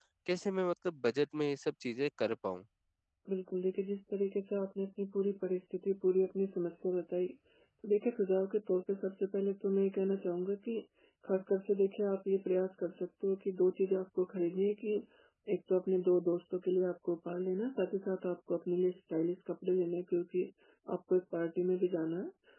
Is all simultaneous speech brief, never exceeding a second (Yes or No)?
Yes